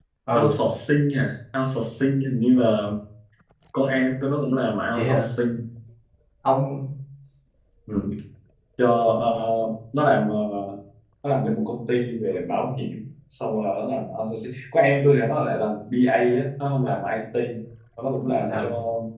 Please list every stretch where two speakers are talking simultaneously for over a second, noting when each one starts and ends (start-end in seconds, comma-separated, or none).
none